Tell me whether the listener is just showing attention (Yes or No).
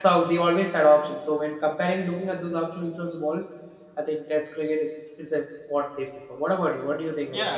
No